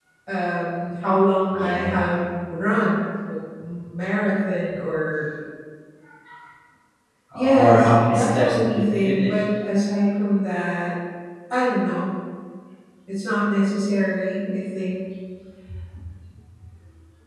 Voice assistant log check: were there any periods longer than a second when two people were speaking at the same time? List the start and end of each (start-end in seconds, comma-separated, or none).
7.3-9.4